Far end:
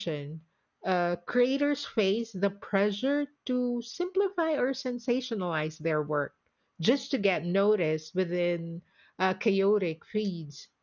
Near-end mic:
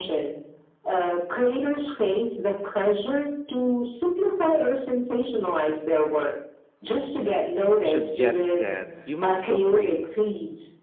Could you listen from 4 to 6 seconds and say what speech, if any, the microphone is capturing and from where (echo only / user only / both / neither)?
echo only